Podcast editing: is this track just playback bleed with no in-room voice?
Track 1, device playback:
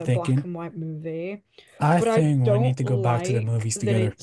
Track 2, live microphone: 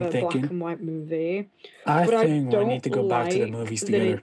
Yes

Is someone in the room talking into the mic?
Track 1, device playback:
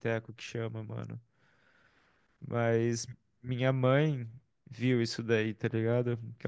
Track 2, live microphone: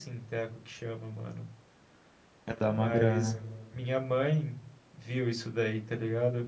Yes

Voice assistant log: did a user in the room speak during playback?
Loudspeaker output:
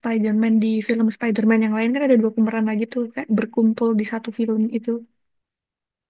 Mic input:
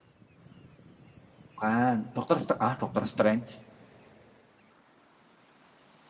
Yes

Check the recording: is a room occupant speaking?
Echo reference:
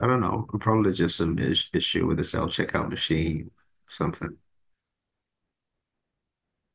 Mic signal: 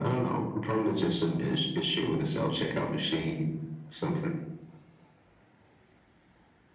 No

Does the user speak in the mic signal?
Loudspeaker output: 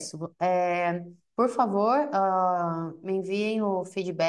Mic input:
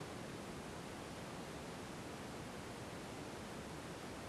No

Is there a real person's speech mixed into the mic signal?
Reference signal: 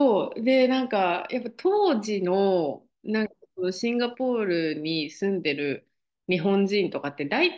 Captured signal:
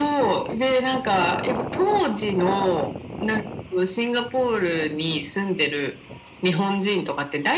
No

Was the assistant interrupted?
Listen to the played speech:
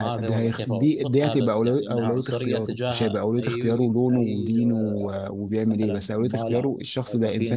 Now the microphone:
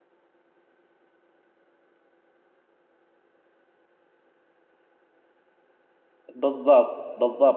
Yes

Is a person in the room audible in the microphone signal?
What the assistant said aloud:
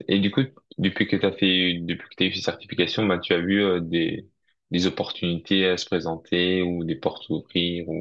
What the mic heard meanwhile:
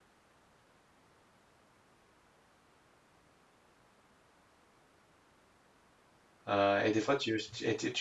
Yes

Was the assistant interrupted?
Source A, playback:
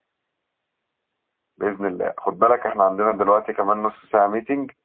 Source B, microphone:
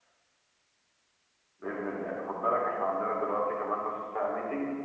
No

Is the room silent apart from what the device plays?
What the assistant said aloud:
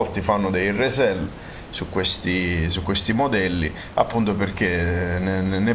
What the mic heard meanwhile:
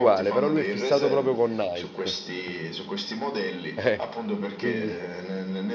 No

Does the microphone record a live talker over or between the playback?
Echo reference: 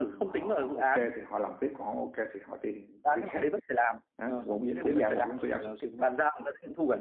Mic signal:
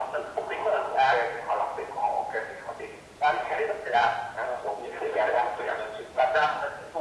No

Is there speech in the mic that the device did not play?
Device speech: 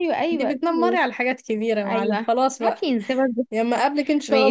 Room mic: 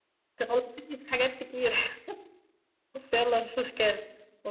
Yes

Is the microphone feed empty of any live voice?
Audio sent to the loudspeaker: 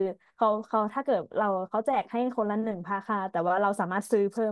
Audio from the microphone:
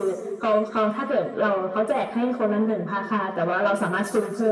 Yes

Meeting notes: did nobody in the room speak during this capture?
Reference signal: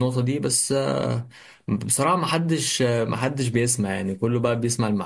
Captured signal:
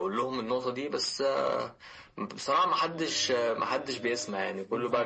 No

